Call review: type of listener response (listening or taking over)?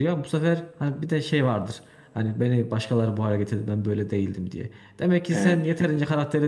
listening